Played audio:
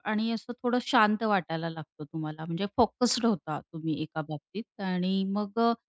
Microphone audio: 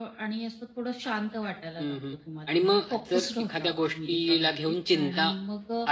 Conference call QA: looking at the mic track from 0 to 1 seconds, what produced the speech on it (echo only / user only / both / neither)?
echo only